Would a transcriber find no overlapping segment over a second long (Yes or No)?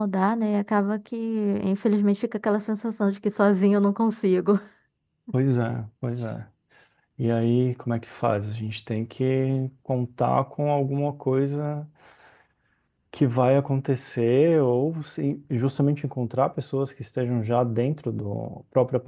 Yes